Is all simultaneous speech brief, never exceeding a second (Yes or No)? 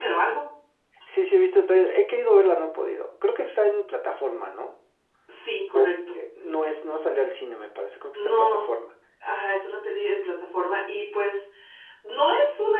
Yes